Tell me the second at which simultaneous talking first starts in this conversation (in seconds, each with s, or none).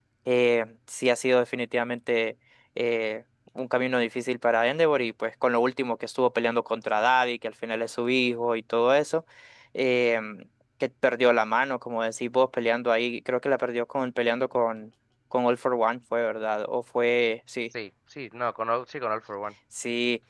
none